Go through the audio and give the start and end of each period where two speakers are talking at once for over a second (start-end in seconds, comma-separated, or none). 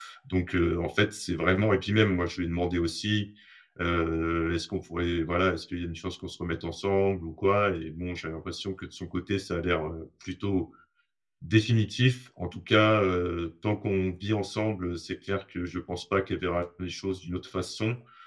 none